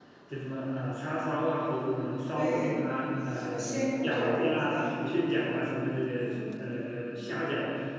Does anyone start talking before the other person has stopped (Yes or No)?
Yes